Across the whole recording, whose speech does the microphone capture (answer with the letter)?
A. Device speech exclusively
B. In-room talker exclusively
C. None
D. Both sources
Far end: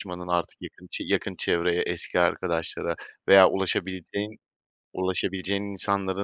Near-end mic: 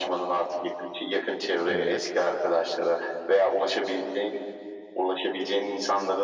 D